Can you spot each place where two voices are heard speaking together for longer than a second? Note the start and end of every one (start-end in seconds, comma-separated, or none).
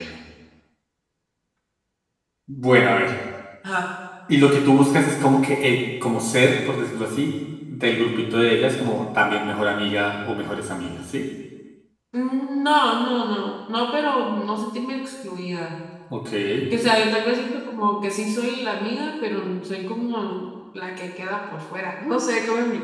none